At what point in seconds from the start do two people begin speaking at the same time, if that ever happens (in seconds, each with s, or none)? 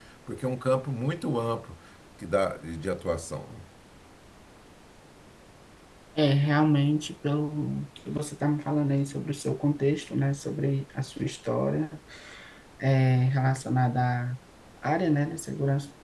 none